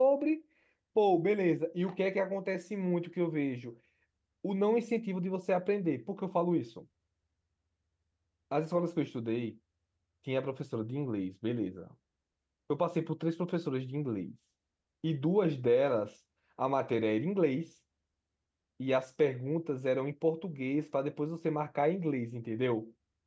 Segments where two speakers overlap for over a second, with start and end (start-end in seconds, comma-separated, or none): none